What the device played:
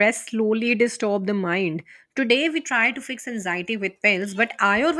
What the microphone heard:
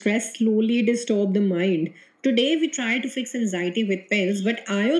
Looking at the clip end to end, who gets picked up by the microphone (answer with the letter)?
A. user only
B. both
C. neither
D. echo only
D